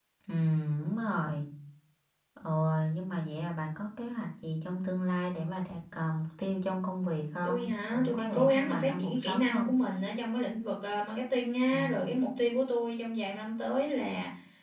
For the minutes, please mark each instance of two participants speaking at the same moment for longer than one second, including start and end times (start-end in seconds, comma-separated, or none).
7.4-9.7